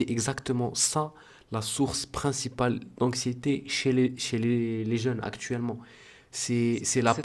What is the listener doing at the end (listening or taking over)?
taking over